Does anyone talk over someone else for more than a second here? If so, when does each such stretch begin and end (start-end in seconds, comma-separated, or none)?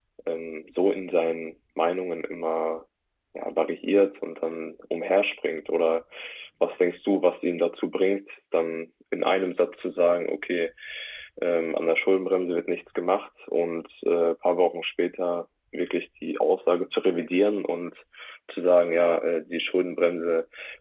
none